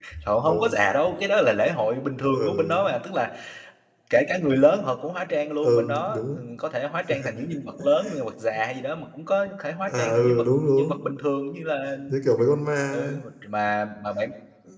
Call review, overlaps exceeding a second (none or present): present